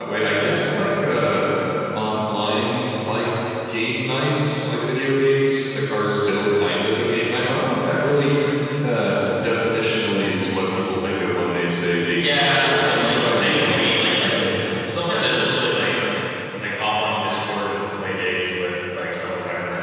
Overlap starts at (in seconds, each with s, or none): 12.2 s